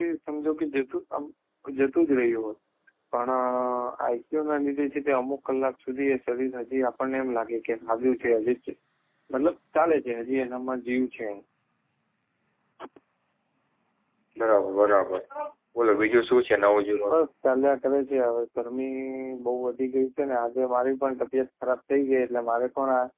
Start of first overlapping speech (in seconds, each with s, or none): none